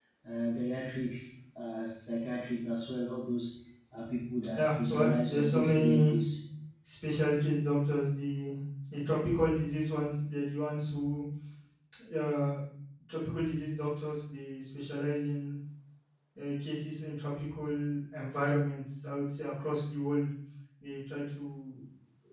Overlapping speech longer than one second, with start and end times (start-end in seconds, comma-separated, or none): 4.6-6.2